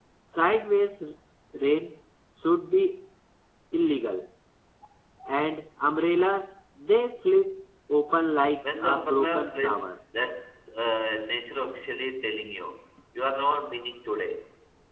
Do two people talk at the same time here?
Yes, from 8.6 s

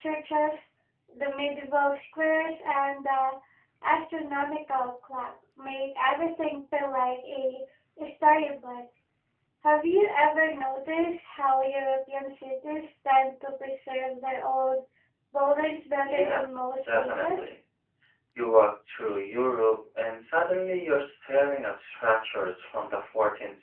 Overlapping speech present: Yes, from 16.0 s

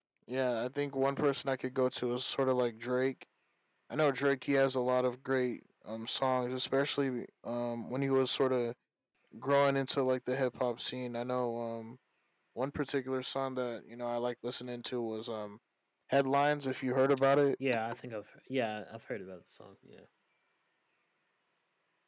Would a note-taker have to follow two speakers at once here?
No

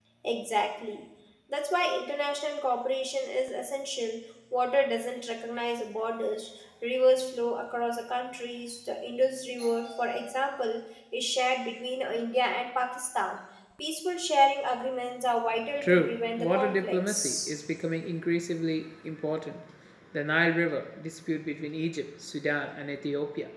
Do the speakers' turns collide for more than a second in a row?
Yes, from 15.8 s

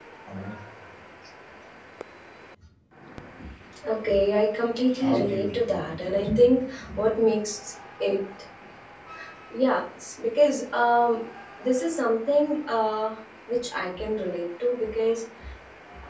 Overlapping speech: Yes, from 5.0 s

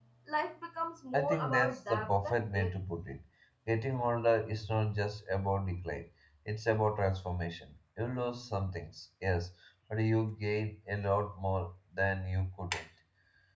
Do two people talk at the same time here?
Yes, from 1.1 s

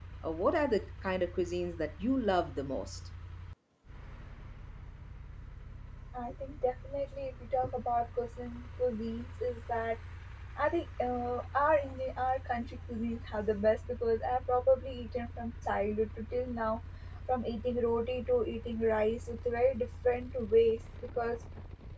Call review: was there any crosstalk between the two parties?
No

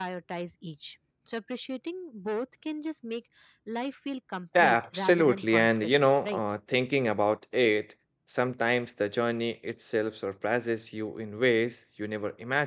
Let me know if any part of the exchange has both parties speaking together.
Yes, from 4.6 s

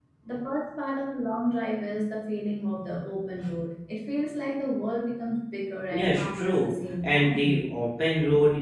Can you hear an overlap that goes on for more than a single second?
Yes, from 5.9 s

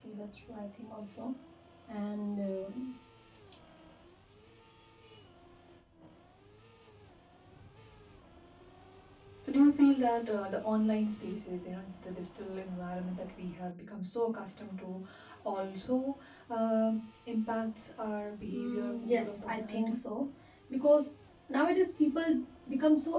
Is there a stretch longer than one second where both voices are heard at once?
Yes, from 18.5 s

